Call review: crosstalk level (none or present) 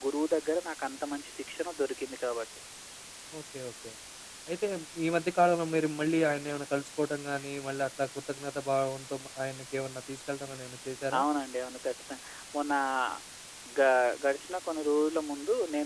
none